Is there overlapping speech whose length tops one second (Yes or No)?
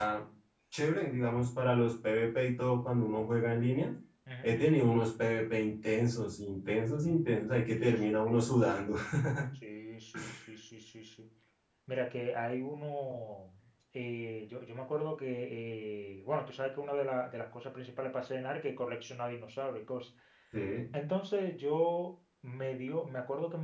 No